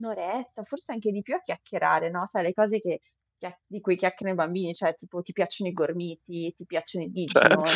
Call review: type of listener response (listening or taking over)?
listening